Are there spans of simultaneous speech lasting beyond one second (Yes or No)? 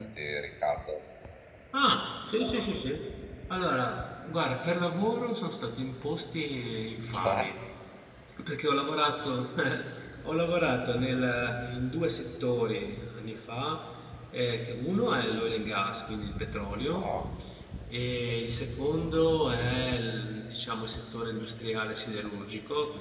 No